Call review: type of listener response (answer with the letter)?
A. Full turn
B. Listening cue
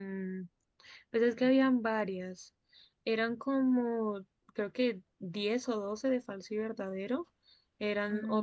B